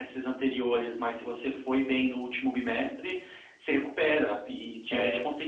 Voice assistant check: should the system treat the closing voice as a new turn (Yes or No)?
No